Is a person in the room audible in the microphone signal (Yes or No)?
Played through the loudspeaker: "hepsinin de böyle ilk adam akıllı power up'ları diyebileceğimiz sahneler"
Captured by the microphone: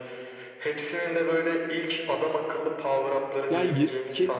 Yes